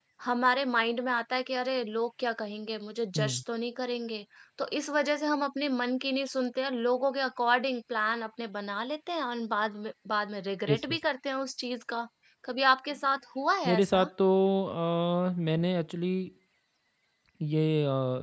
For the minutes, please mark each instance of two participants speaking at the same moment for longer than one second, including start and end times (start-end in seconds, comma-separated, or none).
none